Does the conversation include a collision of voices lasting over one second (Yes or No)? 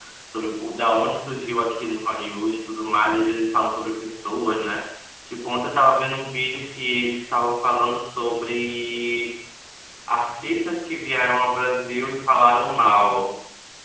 No